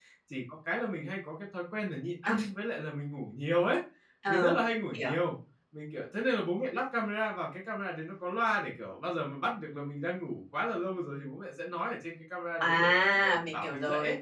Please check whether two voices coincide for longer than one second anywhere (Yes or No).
Yes